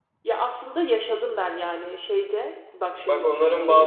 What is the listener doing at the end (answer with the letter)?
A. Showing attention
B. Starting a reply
B